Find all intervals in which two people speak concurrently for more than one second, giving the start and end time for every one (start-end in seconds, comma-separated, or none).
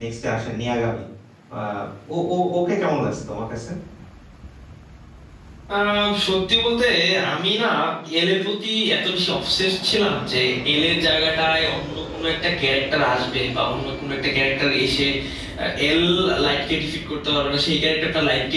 none